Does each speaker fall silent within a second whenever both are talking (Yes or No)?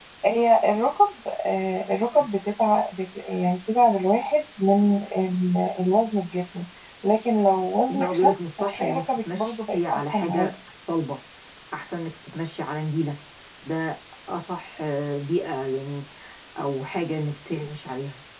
No